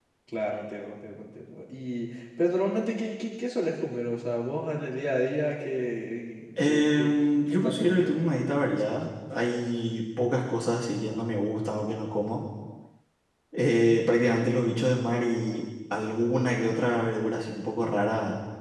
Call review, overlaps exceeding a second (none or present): present